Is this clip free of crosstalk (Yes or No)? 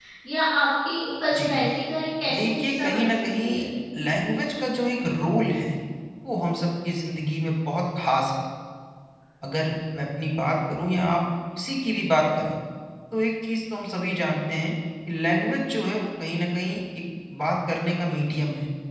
No